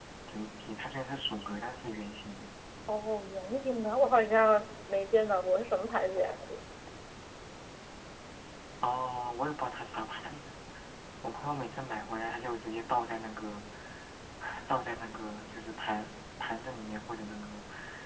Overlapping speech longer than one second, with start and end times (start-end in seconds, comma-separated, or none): none